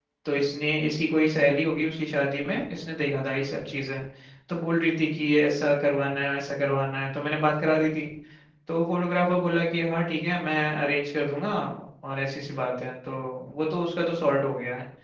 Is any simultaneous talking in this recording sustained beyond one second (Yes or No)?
No